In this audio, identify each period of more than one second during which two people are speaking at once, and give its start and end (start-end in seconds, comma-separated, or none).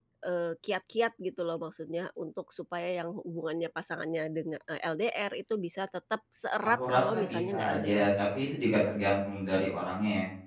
6.8-8.1